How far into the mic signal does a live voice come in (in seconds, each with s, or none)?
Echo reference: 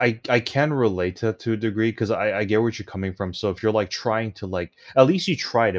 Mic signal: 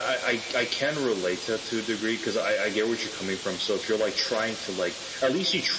none